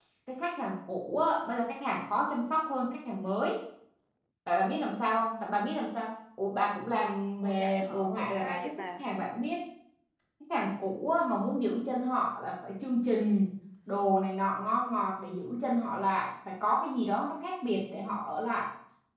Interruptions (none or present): present